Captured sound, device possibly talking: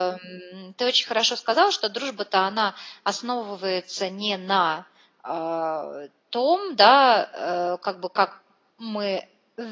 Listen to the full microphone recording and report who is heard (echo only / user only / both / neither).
user only